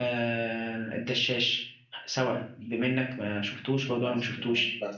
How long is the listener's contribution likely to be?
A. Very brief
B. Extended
B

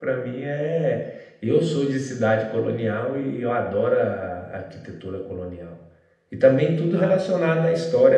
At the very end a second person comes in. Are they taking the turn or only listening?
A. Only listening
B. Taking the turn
A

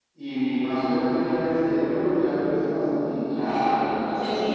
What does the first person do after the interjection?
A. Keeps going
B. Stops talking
B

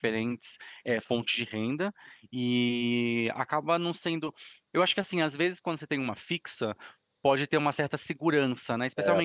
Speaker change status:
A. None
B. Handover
A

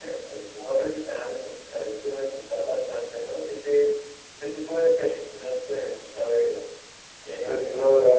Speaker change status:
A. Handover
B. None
A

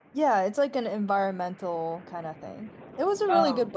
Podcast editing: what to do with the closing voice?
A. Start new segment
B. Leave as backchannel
B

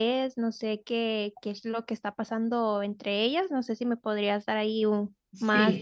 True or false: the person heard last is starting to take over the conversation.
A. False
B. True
B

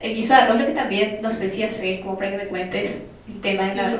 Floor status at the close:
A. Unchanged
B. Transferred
B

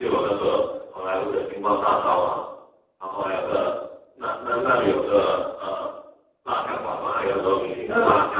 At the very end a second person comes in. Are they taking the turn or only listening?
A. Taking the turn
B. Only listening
B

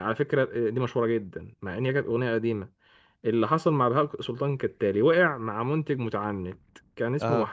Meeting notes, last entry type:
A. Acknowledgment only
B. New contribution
A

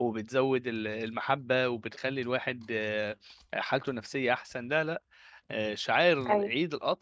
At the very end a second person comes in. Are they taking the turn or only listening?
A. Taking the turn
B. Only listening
B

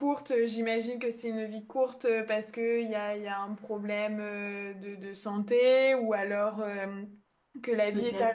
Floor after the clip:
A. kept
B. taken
A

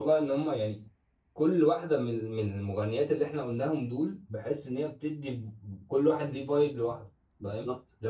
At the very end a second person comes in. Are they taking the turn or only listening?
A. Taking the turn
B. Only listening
A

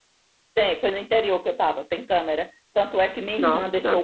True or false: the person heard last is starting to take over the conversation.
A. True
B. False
B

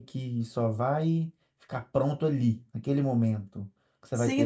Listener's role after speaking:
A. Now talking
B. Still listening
A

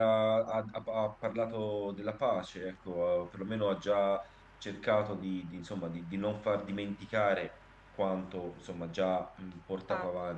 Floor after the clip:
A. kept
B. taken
A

